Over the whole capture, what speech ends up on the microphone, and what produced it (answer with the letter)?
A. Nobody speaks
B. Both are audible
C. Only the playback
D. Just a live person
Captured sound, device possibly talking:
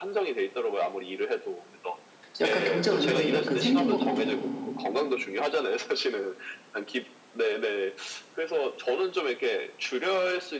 B